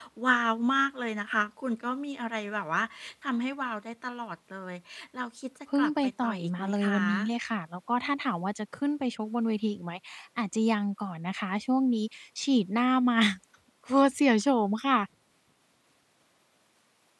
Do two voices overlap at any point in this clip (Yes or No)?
Yes